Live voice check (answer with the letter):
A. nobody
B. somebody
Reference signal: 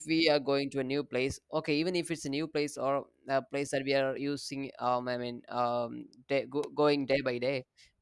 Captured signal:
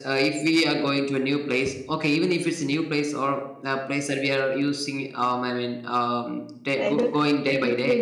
B